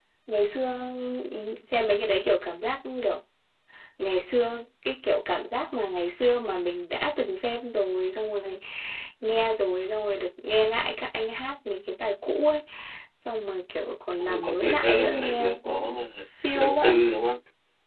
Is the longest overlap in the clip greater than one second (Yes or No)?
Yes